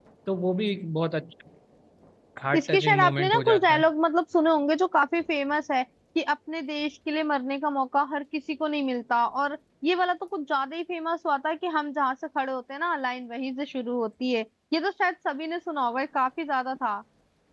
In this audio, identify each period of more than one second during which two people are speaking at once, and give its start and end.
2.6-3.8

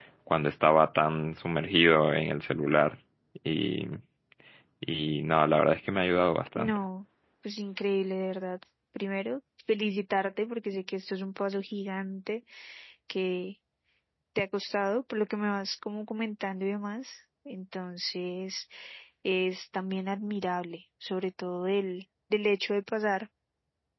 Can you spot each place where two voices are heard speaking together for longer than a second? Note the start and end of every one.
none

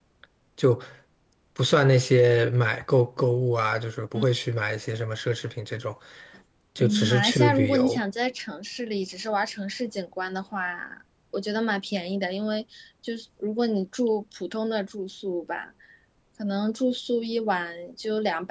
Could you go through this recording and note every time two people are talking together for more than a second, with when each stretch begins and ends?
6.8-8.0

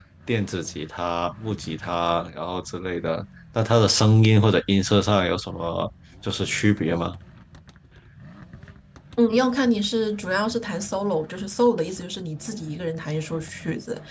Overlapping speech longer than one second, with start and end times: none

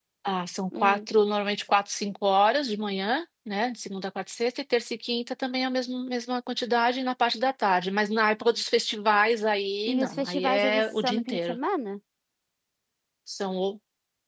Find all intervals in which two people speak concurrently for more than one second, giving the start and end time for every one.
9.9-11.6

